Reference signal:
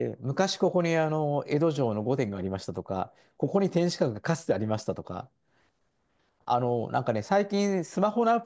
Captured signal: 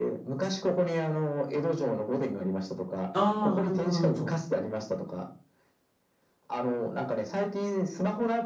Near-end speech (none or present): present